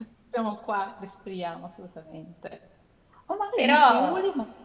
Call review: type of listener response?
listening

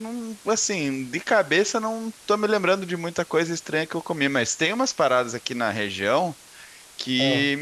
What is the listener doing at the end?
listening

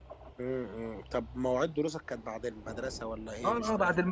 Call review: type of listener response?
taking over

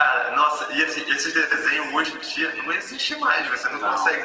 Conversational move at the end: listening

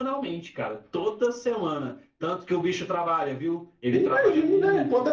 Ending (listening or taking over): taking over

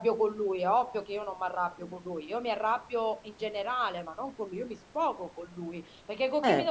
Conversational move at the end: listening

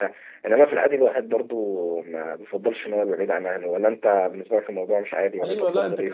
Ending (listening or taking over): taking over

